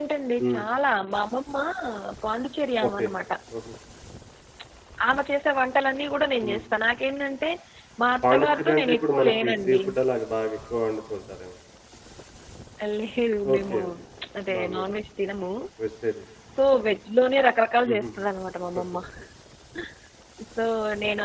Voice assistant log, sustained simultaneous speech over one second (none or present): present